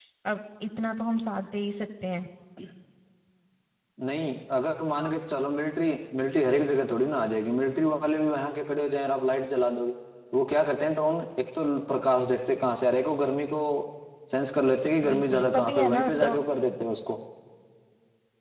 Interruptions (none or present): present